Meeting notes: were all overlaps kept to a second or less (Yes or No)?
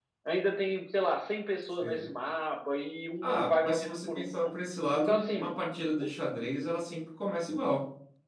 No